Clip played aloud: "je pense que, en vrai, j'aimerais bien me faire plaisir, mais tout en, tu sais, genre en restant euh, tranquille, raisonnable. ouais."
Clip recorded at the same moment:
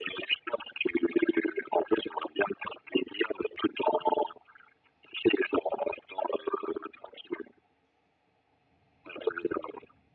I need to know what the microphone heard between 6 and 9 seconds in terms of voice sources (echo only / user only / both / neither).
echo only